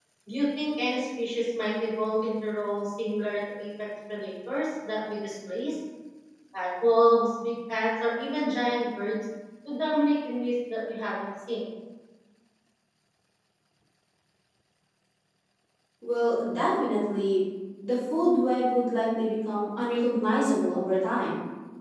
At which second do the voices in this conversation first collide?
none

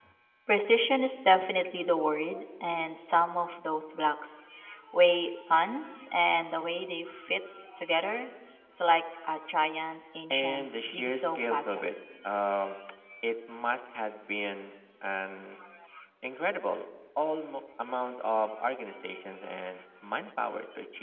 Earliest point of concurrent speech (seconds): 10.3 s

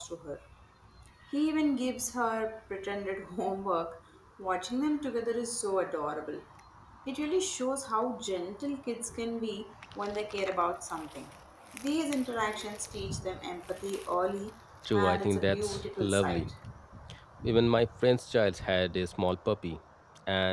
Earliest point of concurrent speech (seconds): 14.8 s

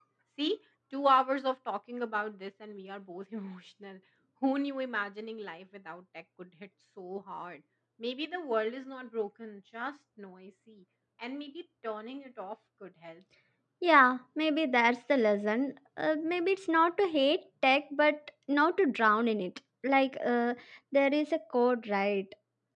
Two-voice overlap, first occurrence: none

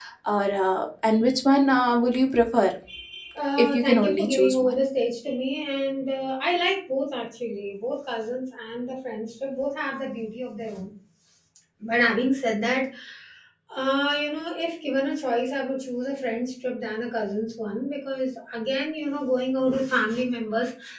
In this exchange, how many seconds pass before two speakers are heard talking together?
3.6 s

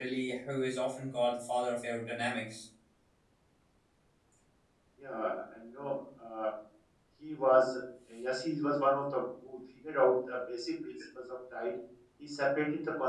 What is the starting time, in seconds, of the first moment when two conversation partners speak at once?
none

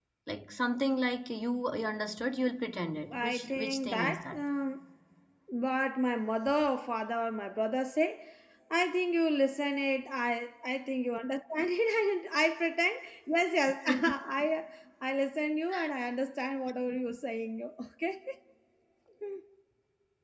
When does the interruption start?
3.1 s

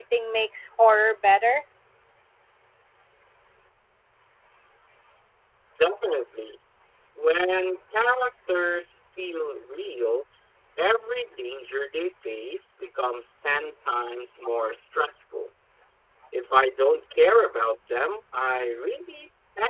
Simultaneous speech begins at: none

